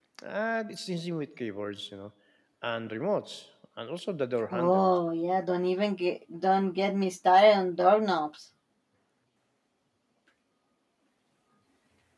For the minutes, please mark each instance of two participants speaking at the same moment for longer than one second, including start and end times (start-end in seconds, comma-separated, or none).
none